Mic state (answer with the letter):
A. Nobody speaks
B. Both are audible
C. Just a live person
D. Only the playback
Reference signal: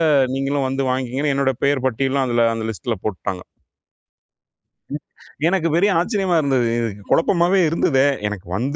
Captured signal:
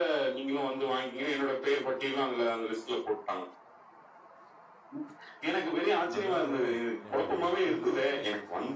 B